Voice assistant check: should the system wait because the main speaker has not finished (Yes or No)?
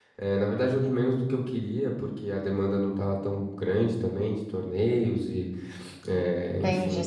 No